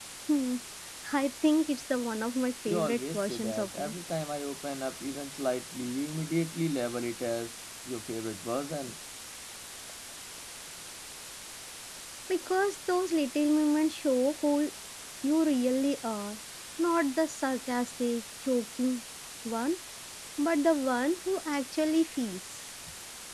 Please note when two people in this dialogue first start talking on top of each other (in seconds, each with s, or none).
2.7 s